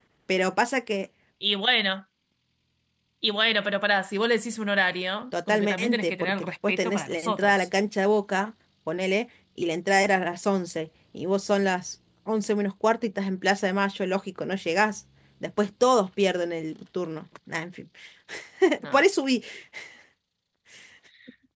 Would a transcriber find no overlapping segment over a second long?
No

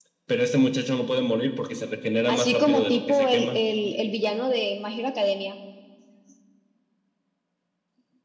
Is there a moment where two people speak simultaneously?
Yes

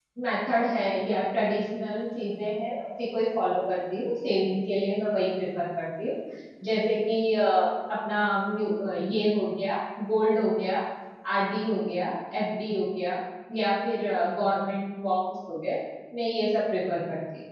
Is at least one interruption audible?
No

